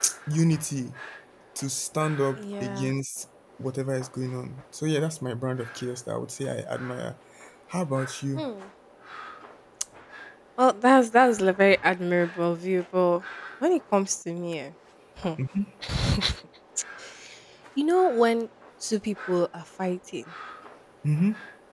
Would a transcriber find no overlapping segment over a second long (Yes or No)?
Yes